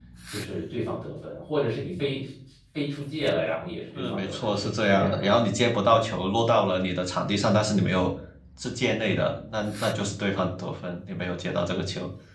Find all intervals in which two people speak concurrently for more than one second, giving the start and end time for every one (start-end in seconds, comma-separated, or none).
3.9-5.2